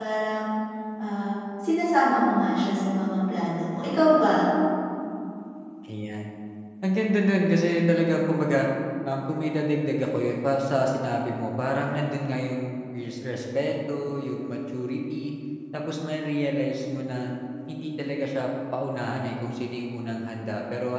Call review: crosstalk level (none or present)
none